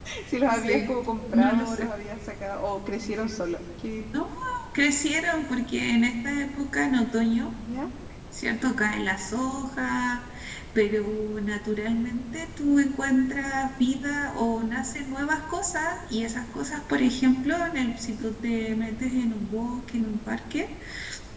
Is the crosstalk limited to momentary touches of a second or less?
Yes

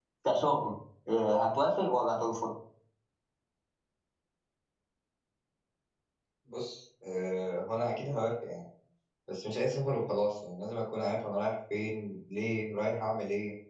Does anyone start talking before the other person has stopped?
No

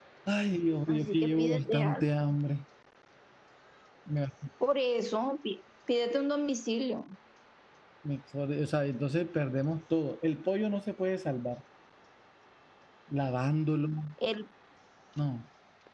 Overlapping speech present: Yes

